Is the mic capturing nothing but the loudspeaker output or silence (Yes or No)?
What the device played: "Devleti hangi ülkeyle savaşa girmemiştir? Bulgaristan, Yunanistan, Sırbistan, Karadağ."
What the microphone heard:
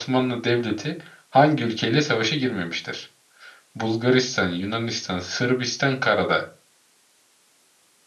Yes